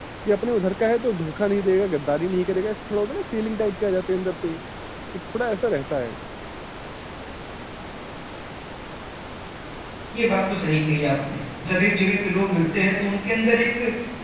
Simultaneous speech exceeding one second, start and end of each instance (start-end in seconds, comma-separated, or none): none